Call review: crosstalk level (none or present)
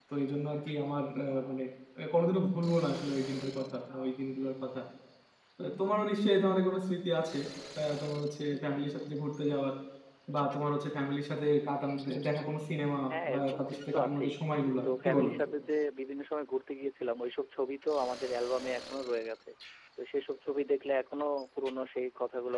present